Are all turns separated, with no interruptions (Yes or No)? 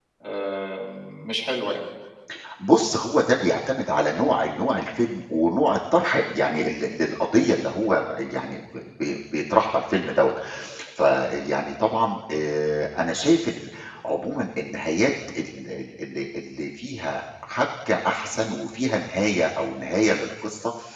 Yes